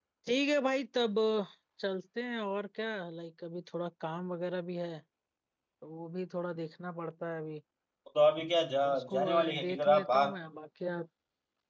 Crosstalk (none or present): present